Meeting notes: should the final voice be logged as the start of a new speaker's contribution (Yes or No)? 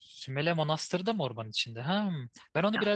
No